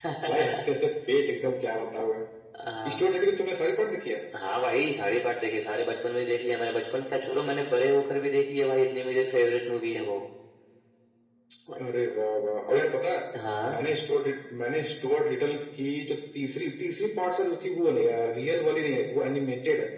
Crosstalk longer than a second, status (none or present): none